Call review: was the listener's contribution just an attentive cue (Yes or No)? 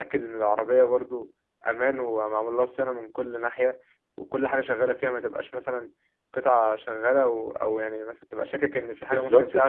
No